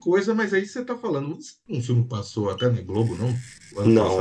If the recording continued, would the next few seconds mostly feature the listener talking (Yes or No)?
Yes